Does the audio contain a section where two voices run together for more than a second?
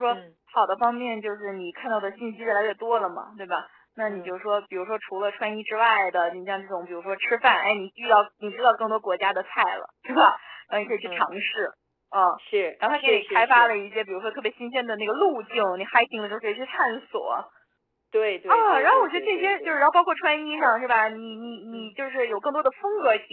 Yes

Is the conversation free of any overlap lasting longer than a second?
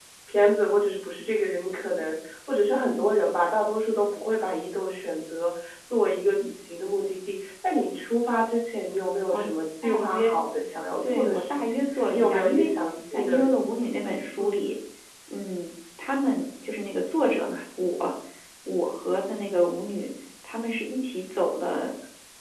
No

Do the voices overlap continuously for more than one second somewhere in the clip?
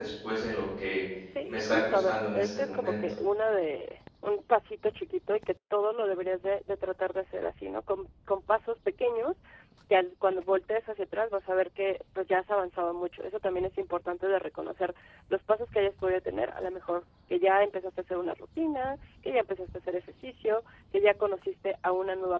Yes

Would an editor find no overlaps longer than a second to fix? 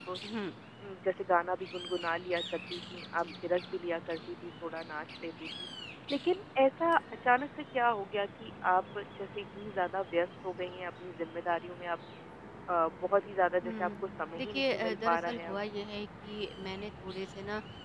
No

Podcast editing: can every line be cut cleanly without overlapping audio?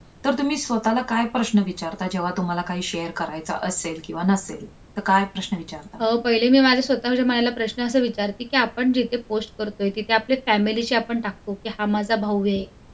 Yes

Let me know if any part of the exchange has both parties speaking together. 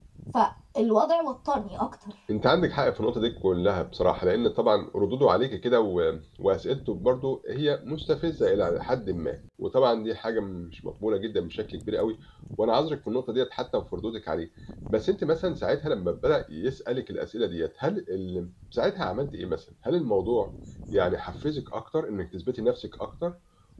No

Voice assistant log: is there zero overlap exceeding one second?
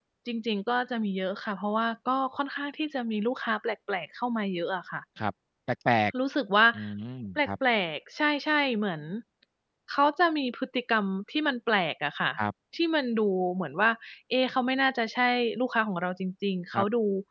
Yes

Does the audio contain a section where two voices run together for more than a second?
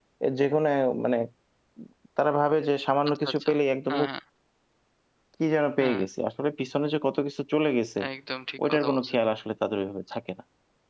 No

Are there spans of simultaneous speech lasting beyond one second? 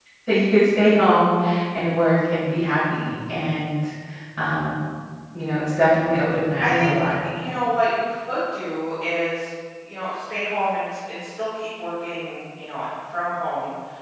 No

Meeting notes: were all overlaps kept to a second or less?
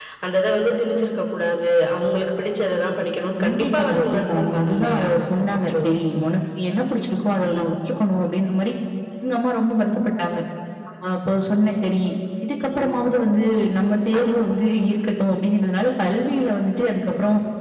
No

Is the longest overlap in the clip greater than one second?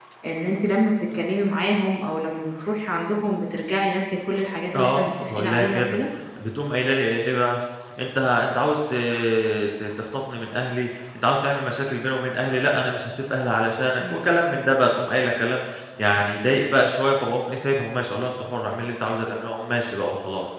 Yes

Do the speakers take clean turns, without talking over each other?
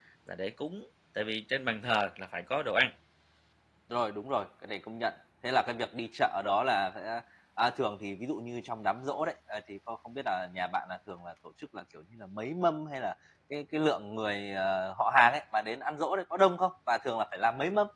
Yes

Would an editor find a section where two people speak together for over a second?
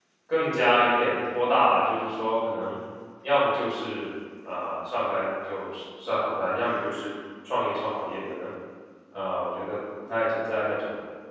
No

